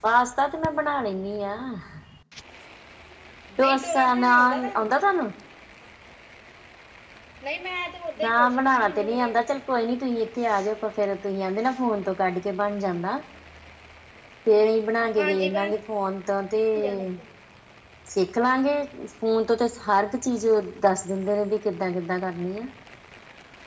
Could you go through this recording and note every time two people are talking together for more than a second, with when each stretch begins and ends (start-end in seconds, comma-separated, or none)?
3.6-4.9, 8.2-9.5